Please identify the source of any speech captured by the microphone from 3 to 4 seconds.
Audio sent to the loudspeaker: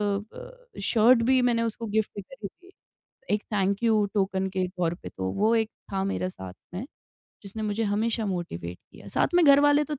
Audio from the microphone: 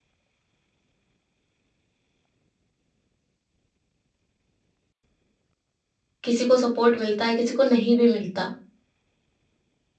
neither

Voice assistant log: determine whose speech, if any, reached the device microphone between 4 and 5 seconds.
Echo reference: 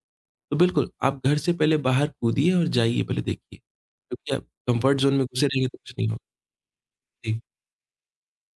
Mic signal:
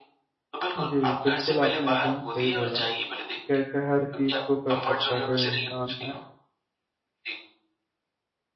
both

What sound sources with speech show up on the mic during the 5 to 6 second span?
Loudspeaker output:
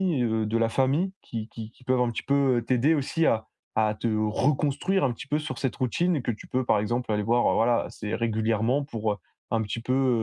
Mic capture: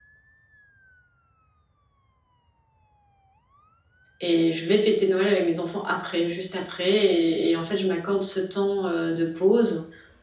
user only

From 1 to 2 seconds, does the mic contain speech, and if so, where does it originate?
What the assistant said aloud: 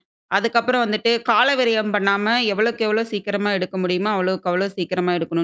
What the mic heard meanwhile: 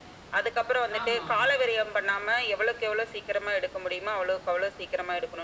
both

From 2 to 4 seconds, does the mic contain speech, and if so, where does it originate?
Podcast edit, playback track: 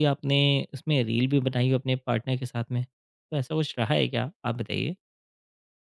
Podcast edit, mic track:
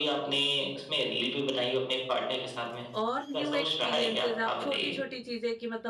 both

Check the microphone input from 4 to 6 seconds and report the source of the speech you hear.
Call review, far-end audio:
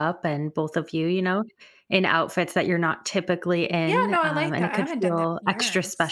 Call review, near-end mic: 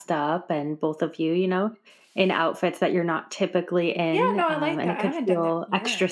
echo only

